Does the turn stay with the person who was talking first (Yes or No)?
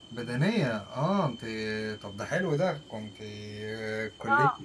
No